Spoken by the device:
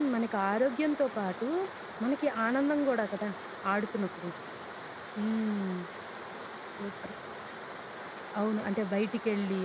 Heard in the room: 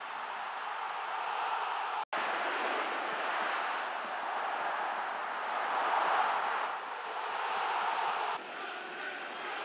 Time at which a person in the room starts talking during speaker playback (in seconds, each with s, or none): none